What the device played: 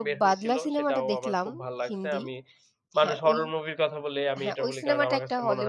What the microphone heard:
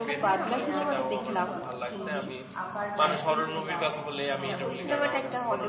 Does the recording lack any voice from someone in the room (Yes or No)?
No